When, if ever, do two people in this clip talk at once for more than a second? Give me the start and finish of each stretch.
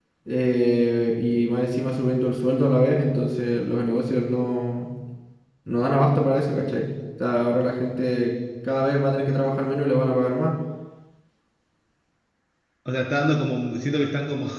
none

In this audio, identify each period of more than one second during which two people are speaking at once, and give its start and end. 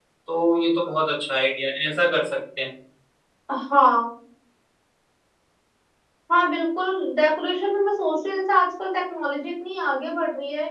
none

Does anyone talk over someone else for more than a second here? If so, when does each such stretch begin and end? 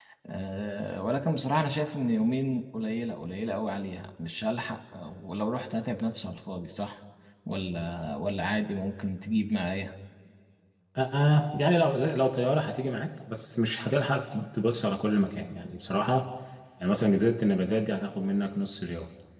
none

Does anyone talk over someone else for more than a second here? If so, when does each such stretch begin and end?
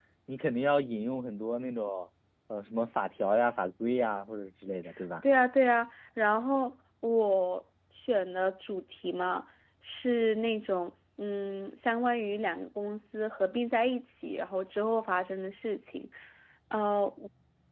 none

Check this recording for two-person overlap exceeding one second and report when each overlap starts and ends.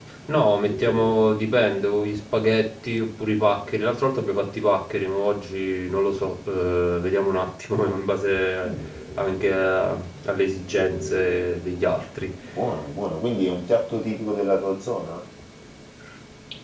none

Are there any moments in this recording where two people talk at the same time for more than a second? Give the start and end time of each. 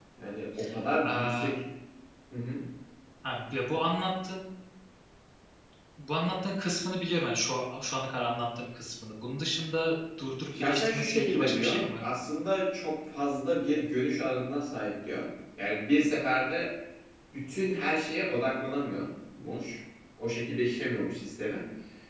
10.6-12.1

